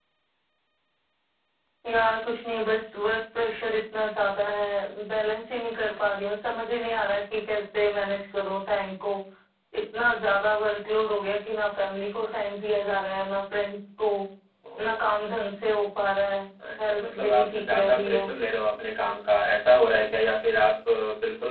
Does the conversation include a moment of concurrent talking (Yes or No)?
Yes